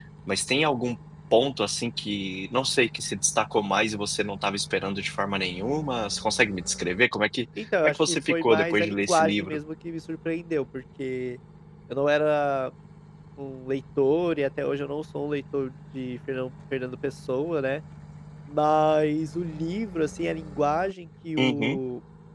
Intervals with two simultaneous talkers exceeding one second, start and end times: 7.8-9.6

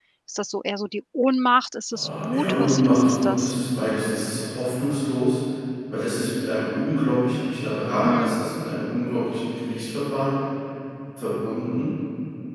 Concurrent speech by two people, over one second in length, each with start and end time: 1.9-3.5

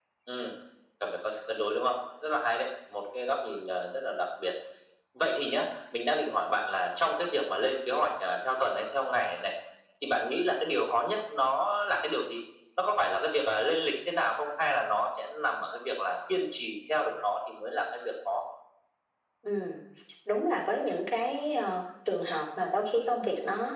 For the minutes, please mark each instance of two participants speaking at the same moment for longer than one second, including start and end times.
none

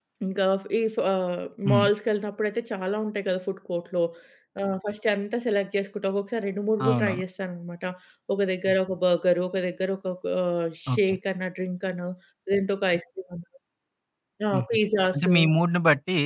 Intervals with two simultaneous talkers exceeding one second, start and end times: none

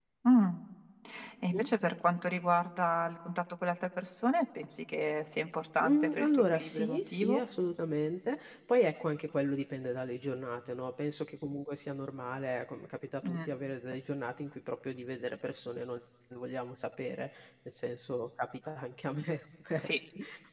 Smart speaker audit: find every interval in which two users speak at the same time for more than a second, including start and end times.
5.8-7.4

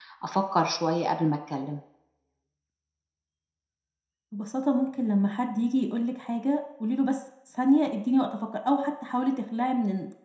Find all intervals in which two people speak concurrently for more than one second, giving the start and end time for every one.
none

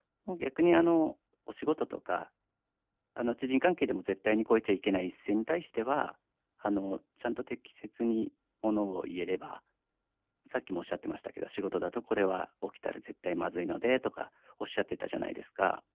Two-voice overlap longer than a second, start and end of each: none

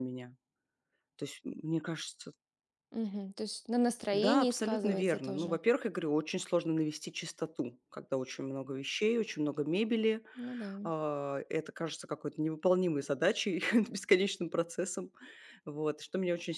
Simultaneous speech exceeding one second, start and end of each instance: 4.1-5.6

